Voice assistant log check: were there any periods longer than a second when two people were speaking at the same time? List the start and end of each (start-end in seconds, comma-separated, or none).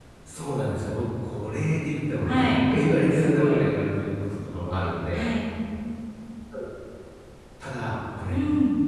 2.2-3.6